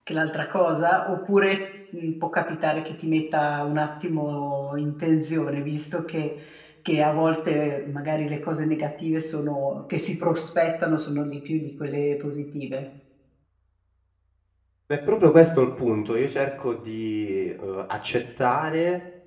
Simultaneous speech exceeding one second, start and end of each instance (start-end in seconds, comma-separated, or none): none